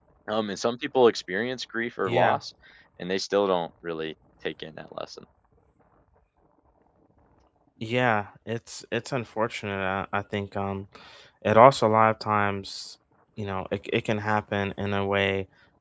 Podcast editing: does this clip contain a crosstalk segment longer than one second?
No

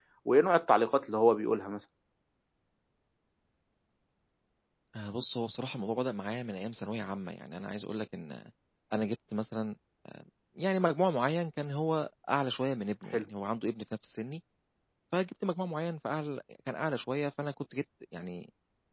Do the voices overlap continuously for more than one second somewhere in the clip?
No

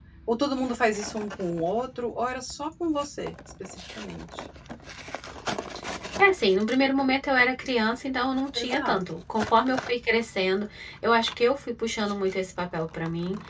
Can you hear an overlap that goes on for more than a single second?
No

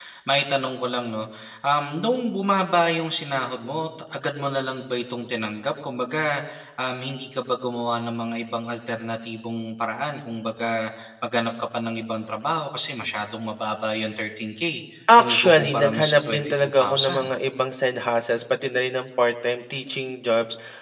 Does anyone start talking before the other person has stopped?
Yes, from 15.1 s

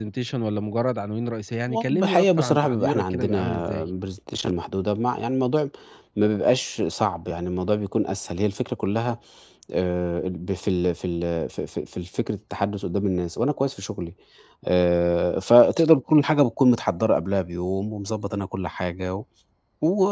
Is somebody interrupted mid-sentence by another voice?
Yes, from 1.7 s

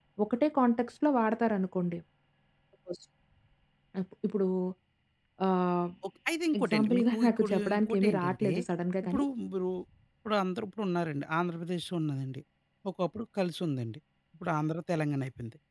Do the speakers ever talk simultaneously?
Yes, from 6.6 s

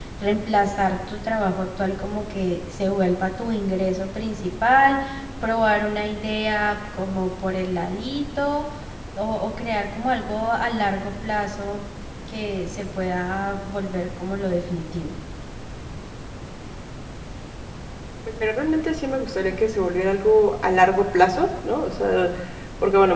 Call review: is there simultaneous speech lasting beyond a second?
No

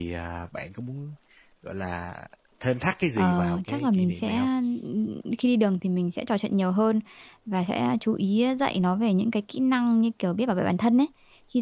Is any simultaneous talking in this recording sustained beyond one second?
Yes, from 3.2 s

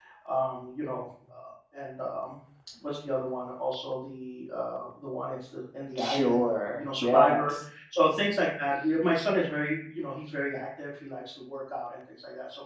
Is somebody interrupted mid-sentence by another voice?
Yes, from 6.0 s

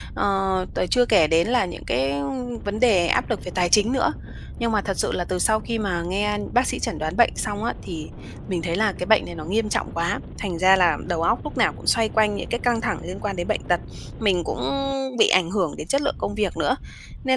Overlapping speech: No

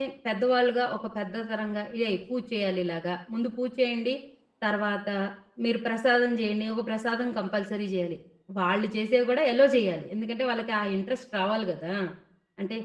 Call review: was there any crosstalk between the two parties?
No

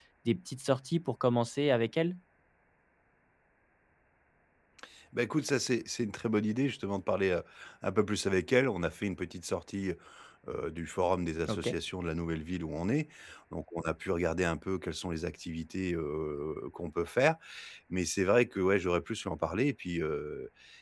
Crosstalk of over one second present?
No

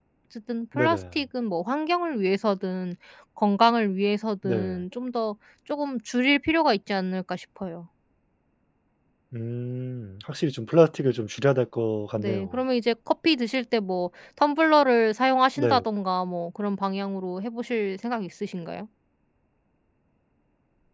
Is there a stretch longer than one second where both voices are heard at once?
No

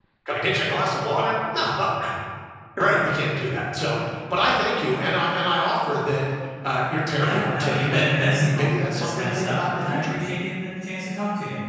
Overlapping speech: Yes, from 7.2 s

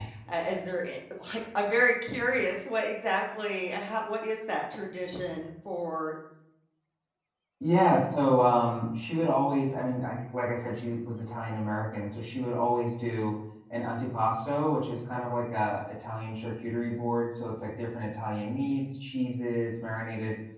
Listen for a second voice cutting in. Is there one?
No

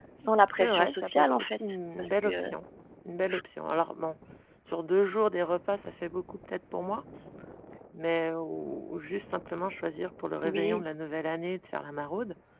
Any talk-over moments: Yes, from 0.5 s

